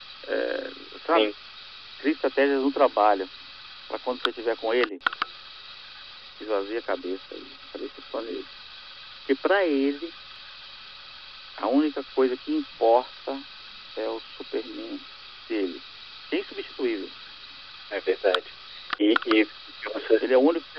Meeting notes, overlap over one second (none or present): none